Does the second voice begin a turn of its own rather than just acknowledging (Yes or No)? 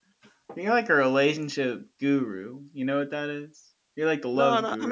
Yes